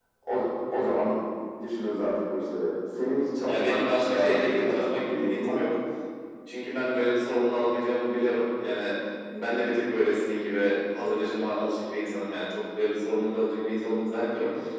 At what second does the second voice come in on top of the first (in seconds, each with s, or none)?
3.5 s